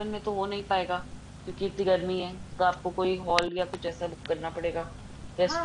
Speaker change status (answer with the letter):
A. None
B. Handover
B